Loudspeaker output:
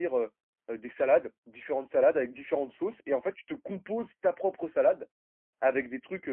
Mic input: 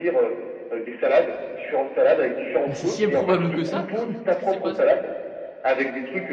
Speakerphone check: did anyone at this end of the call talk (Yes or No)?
Yes